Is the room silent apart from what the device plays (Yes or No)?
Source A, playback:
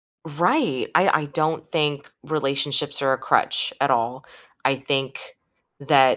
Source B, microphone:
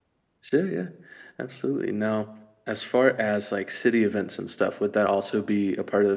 No